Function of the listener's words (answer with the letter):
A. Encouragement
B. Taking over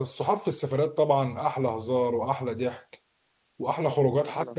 A